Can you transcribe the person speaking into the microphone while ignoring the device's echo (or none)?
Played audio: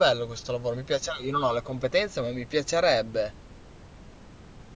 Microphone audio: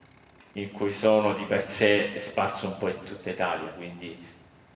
in cui sono di per sé è sparso un po' in tutta Italia, quindi